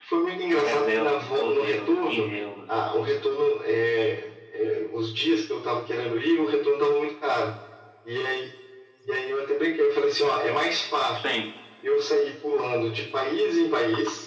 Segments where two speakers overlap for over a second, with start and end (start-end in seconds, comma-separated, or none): 0.5-2.3